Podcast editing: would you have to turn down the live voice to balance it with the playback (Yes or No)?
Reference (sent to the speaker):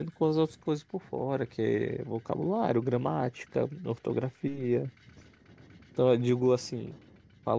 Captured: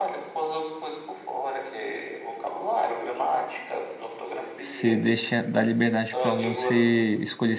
Yes